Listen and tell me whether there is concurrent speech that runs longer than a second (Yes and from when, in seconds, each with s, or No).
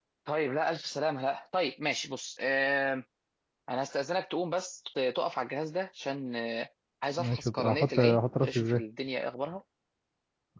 Yes, from 7.2 s